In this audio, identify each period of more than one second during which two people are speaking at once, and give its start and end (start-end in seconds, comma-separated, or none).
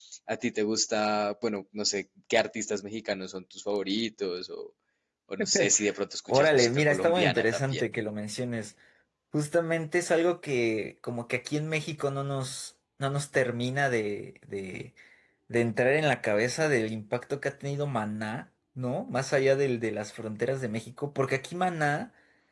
6.3-7.8